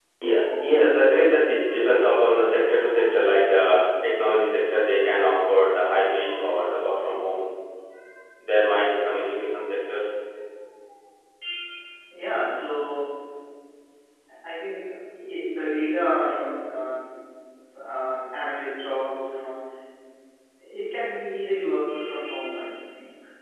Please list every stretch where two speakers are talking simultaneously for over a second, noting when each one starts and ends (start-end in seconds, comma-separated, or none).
none